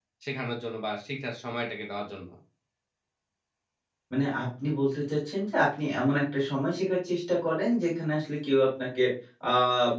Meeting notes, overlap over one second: none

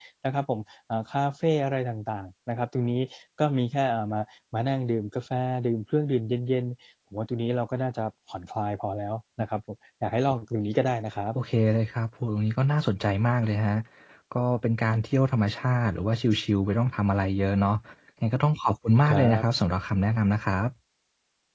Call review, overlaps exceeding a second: none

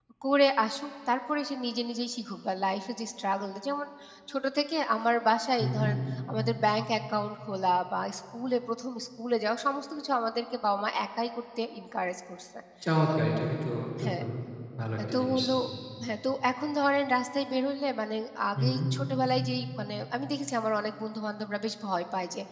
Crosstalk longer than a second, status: none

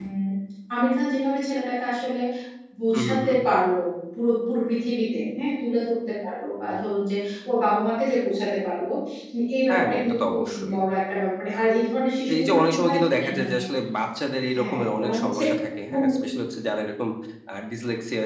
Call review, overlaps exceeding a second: present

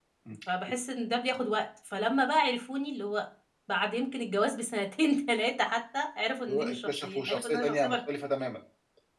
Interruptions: present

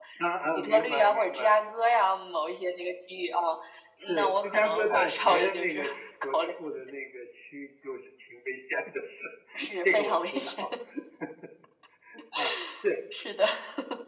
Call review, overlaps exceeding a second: present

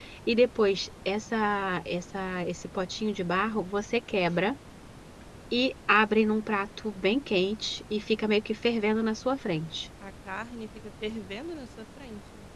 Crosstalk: none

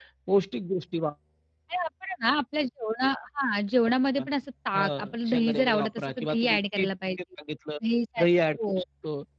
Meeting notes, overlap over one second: present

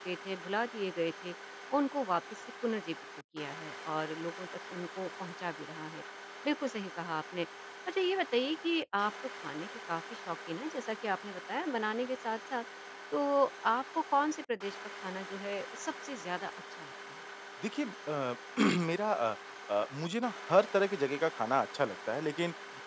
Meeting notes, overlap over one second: none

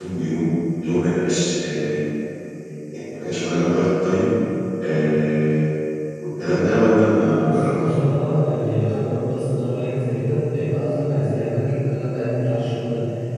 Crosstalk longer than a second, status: none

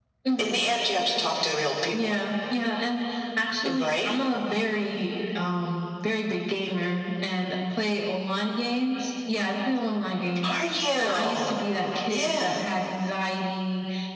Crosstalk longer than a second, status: none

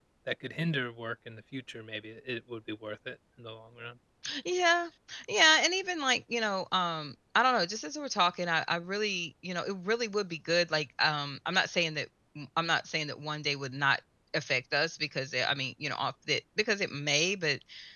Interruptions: none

